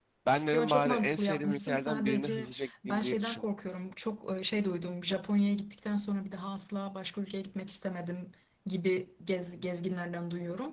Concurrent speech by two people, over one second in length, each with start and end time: 0.5-3.5

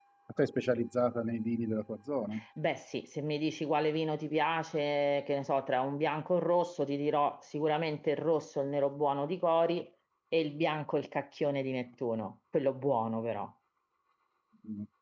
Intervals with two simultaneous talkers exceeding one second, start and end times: none

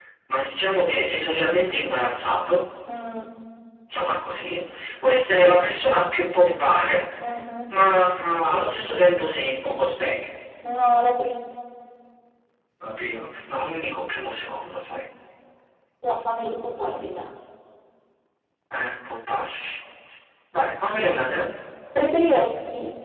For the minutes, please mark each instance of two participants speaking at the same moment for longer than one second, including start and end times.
none

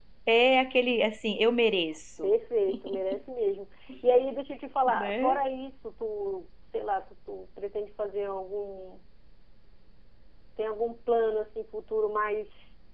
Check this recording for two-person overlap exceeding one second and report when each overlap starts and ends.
none

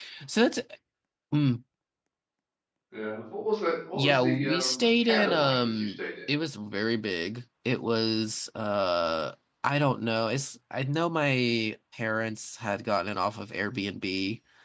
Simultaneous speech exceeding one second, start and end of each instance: 3.9-6.0

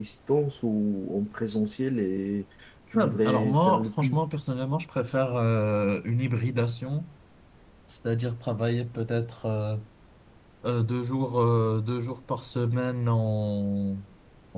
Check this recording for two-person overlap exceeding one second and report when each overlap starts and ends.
3.0-4.2

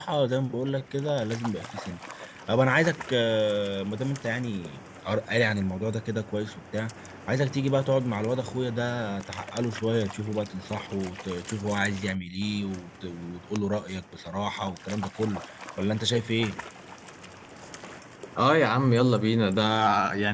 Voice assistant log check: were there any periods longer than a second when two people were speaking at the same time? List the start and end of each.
none

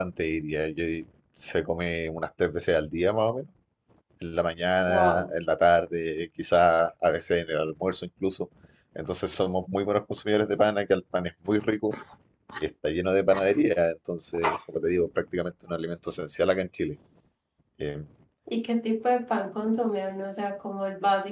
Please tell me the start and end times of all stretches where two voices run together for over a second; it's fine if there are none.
none

